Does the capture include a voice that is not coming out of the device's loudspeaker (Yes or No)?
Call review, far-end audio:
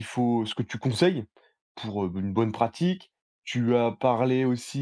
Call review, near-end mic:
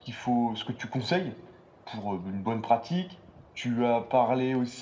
No